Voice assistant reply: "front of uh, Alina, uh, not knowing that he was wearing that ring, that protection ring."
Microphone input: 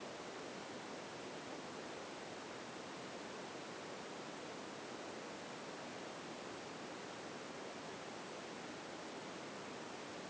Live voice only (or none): none